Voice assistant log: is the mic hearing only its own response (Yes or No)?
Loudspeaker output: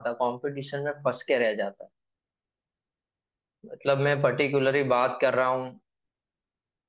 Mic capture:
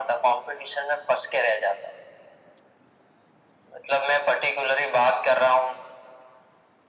Yes